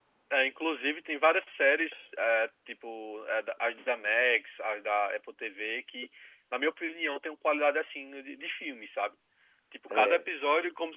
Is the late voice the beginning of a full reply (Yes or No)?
No